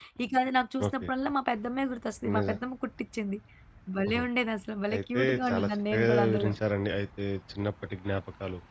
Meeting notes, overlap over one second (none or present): present